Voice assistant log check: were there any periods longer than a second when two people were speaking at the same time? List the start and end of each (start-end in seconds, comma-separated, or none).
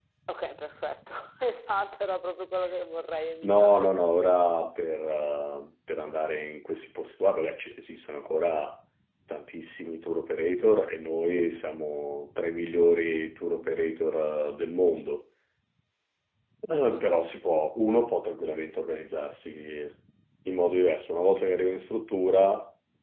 none